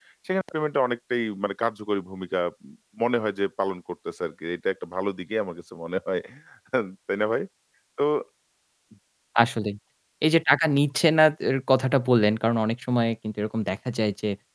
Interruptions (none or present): none